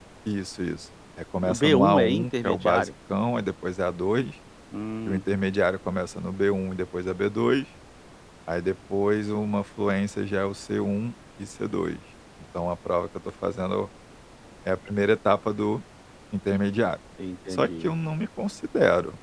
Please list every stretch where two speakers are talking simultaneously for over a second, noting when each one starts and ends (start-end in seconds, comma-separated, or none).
1.5-2.9